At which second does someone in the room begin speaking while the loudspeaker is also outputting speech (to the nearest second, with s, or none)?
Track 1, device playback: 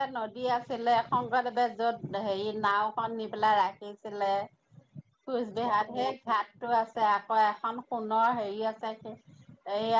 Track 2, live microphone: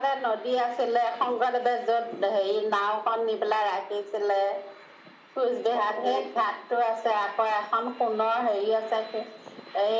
none